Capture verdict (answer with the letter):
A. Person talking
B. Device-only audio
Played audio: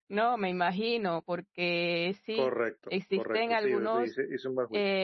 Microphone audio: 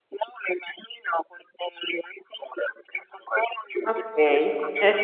A